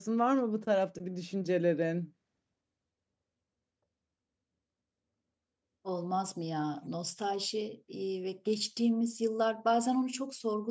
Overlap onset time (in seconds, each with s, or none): none